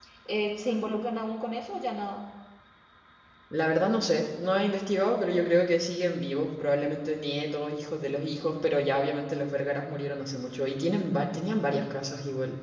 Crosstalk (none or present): none